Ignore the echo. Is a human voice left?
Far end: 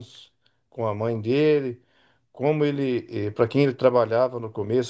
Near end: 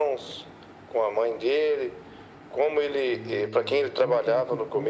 Yes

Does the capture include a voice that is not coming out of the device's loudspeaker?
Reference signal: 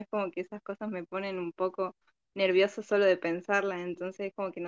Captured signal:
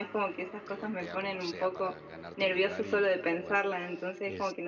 Yes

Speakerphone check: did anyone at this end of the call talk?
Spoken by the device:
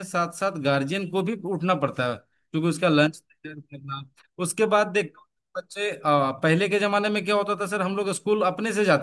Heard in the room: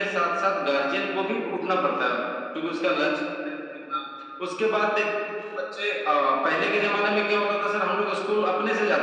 No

